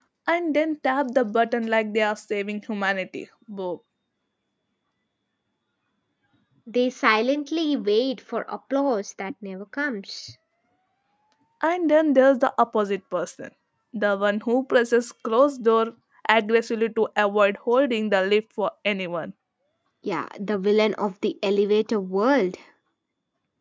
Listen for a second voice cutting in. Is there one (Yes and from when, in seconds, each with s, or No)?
No